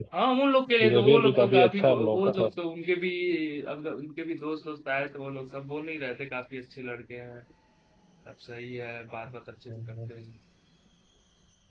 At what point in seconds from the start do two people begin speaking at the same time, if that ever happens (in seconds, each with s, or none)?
0.8 s